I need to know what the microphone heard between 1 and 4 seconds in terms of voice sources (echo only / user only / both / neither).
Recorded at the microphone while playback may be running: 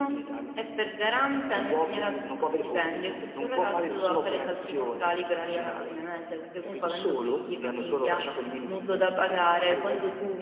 echo only